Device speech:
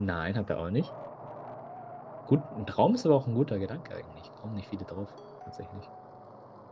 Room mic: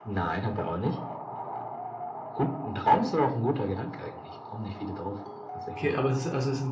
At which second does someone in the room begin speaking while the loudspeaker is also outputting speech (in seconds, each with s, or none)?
5.7 s